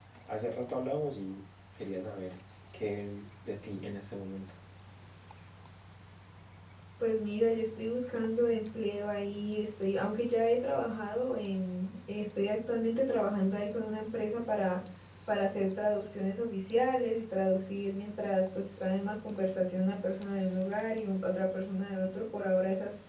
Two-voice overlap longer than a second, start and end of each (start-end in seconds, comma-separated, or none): none